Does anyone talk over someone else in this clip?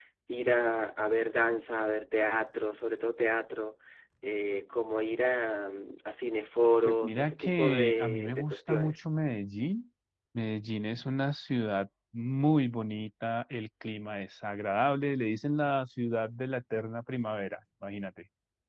Yes, from 6.8 s

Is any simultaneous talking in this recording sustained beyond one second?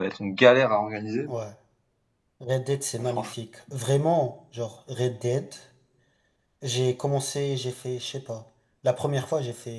No

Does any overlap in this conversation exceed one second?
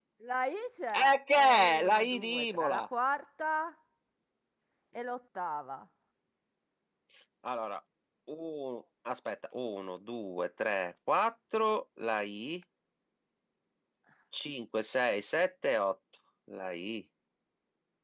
Yes, from 1.0 s

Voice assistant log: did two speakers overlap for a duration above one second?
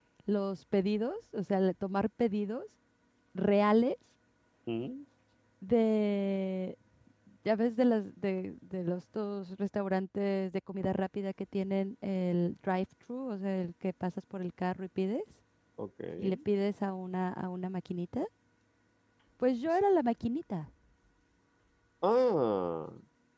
No

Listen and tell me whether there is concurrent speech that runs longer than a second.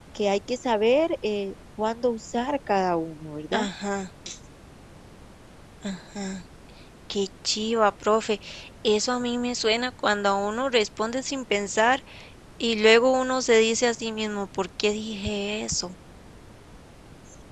No

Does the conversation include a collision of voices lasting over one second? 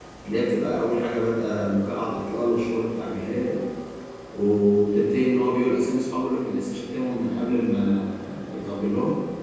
No

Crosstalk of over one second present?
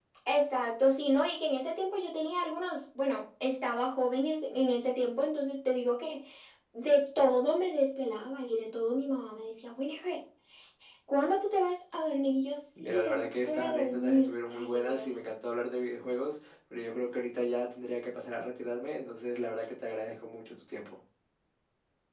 Yes, from 12.8 s

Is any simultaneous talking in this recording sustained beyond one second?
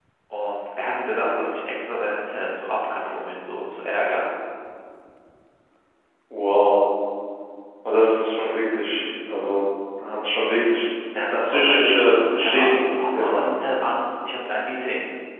Yes, from 11.4 s

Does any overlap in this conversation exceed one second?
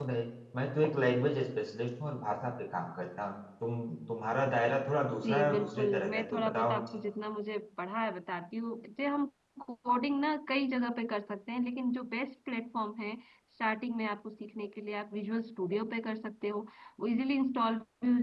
Yes, from 5.2 s

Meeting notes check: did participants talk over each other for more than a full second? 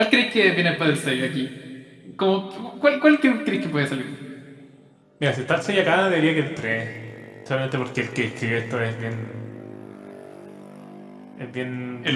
No

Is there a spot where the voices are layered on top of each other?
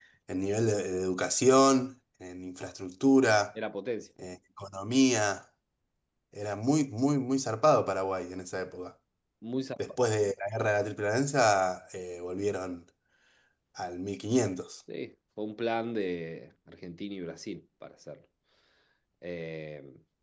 No

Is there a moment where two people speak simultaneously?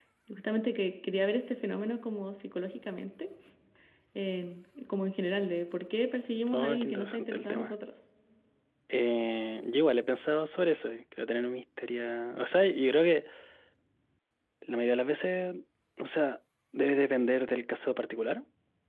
Yes, from 6.5 s

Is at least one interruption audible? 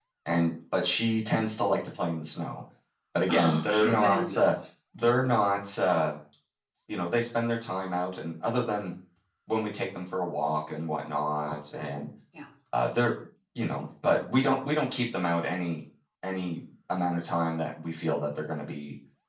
Yes, from 3.3 s

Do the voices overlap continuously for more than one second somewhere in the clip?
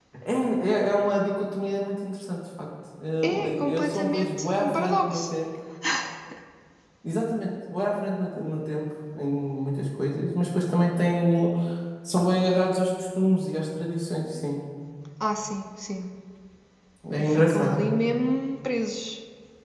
Yes, from 3.2 s

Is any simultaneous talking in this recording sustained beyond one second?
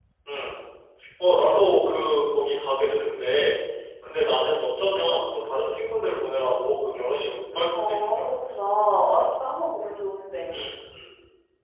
No

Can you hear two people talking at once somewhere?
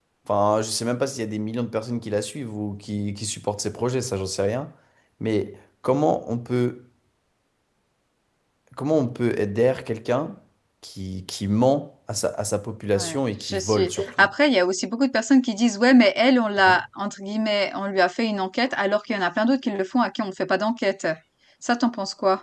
Yes, from 13.0 s

